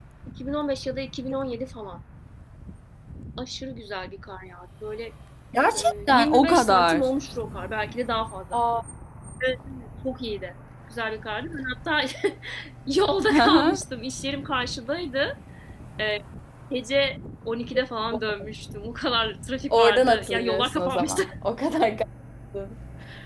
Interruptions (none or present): present